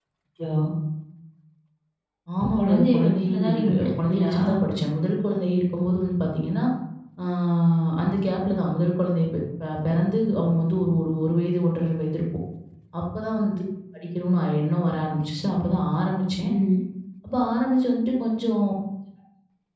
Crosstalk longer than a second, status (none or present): present